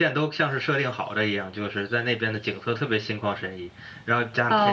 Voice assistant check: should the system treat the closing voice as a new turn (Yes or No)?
Yes